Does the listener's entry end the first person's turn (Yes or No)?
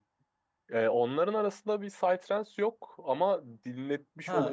No